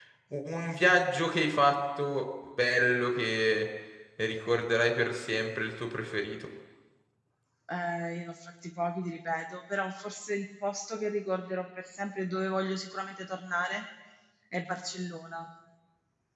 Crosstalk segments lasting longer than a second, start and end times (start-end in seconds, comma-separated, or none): none